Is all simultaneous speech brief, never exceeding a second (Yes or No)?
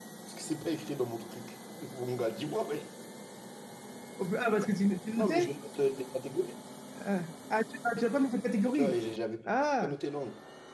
Yes